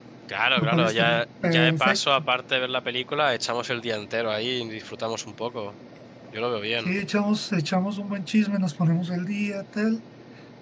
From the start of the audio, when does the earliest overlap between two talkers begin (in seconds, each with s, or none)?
0.6 s